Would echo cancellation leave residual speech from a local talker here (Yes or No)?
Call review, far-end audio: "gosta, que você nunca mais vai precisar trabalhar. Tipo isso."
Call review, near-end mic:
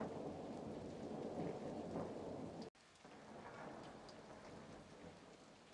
No